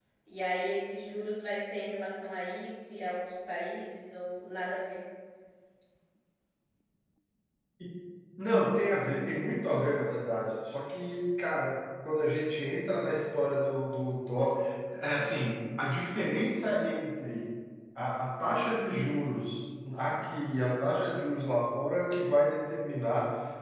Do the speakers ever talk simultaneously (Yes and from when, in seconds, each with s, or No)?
No